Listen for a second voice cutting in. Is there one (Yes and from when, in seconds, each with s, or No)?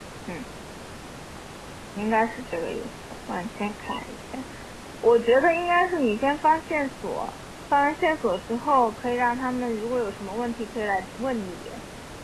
No